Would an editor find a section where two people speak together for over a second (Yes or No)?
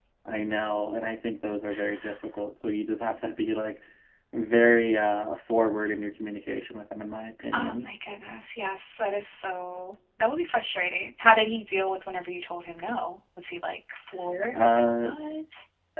No